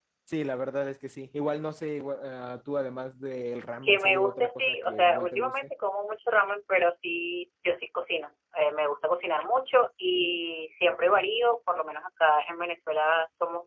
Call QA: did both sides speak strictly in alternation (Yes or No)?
No